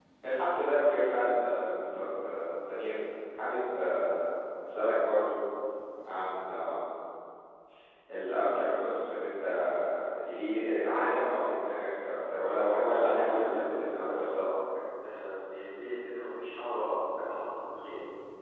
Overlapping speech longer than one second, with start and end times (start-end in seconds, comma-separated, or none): 13.0-14.4